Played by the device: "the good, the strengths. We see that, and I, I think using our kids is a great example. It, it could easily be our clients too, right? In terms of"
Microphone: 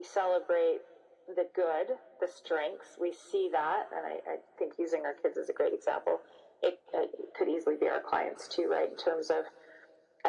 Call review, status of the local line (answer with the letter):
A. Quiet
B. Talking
A